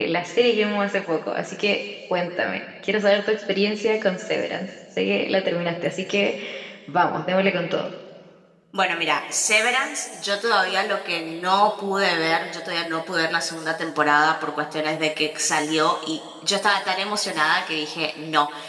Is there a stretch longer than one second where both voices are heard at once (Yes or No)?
No